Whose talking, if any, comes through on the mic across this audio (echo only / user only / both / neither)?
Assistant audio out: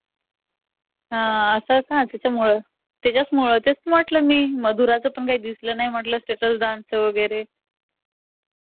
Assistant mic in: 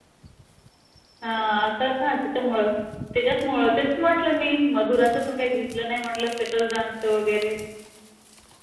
echo only